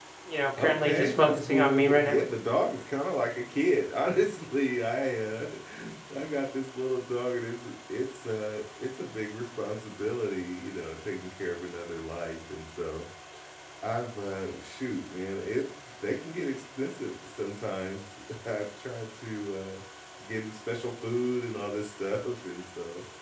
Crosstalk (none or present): present